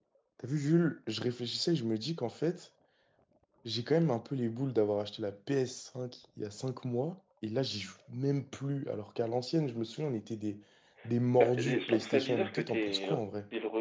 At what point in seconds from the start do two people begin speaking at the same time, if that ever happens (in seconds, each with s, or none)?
11.4 s